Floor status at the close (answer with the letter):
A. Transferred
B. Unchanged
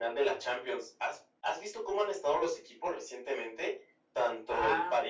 B